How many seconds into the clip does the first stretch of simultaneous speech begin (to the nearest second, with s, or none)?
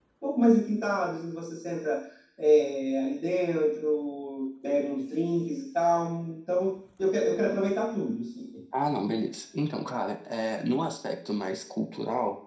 none